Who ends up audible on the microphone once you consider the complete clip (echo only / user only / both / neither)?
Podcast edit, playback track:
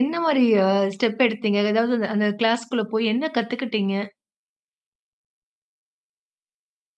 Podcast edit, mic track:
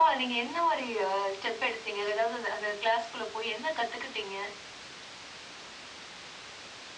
echo only